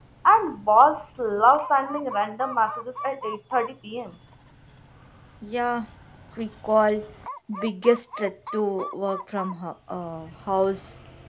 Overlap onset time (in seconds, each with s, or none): none